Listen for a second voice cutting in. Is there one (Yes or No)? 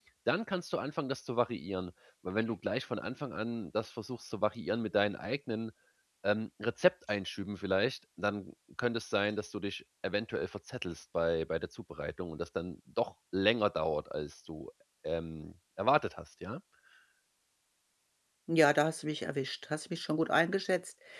No